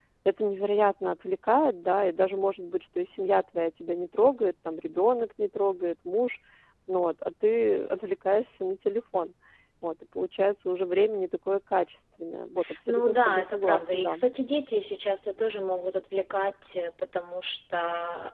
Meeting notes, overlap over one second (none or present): present